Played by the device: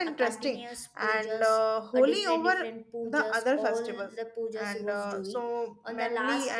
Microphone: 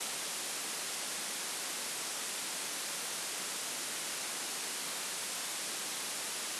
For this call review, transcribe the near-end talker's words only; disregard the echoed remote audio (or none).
none